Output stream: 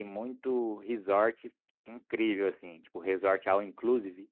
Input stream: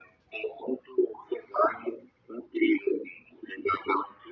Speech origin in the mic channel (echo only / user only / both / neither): echo only